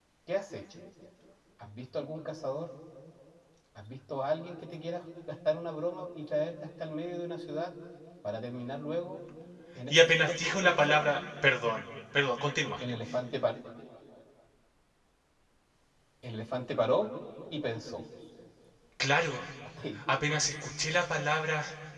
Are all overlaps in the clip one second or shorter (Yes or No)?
No